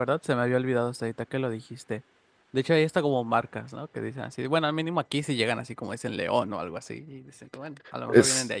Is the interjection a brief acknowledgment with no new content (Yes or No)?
No